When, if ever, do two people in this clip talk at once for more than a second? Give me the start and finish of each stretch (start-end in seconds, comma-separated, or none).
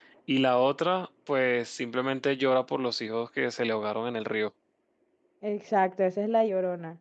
none